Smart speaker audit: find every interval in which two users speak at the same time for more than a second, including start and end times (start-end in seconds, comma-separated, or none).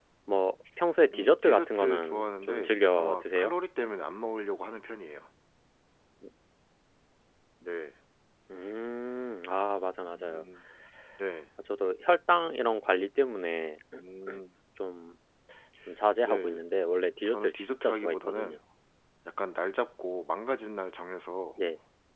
1.1-3.5, 17.2-18.6